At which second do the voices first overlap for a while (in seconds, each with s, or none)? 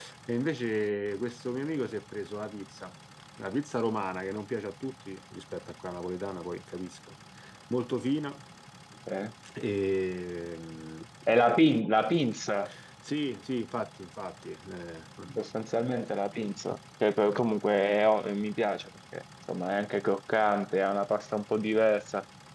none